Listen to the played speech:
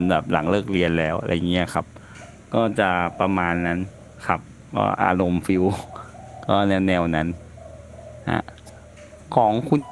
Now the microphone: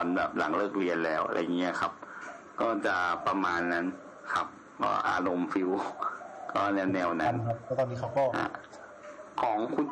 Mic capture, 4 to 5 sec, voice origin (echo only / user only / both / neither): echo only